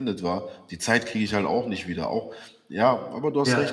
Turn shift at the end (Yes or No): No